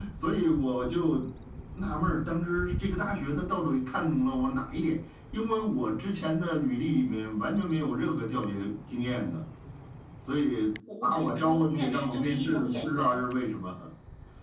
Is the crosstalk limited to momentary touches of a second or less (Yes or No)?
No